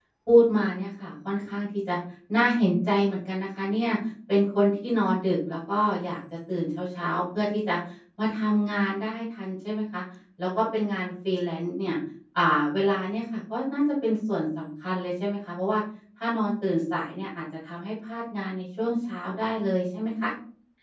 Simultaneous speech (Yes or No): No